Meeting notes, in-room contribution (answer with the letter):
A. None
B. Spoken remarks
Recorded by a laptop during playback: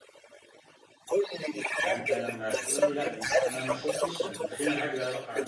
B